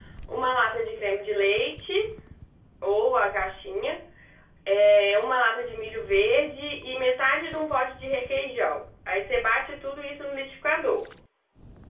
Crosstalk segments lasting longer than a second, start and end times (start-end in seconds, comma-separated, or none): none